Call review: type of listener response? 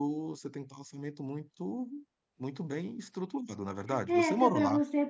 taking over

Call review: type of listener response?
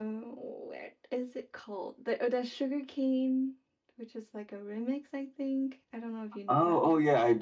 taking over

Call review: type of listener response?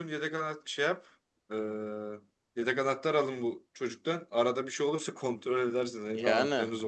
taking over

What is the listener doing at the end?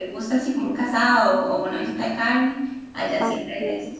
taking over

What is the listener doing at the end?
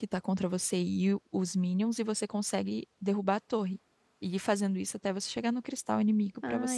taking over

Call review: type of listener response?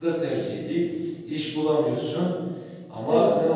listening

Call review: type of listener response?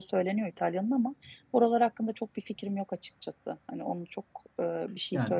taking over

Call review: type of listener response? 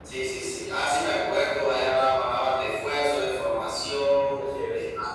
listening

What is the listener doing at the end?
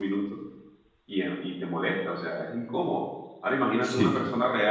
listening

